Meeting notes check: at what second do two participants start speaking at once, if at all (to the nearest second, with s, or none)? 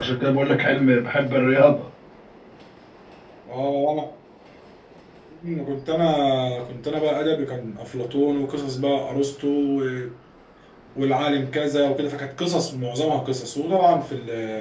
none